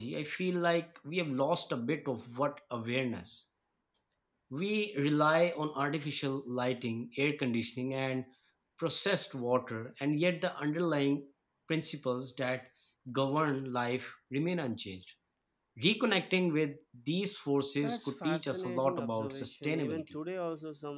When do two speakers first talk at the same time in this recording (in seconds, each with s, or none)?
17.8 s